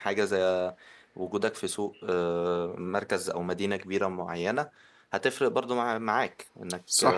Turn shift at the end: No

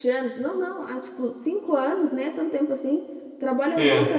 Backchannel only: Yes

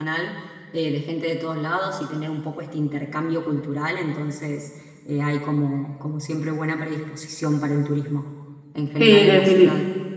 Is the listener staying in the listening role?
No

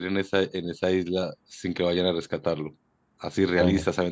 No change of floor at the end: Yes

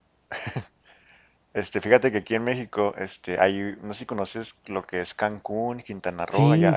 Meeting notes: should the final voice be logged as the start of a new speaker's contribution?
No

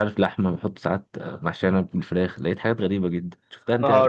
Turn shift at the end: Yes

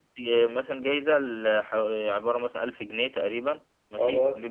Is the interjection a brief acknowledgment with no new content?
Yes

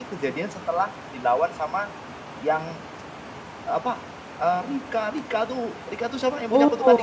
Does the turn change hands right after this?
Yes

